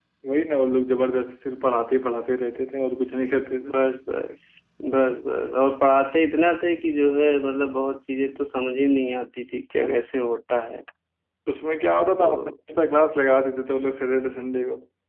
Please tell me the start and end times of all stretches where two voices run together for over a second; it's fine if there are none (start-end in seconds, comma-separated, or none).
none